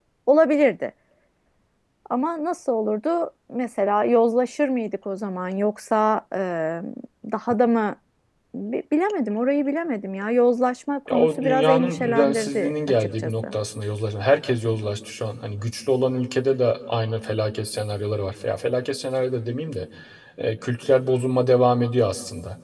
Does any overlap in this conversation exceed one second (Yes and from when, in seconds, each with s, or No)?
Yes, from 11.1 s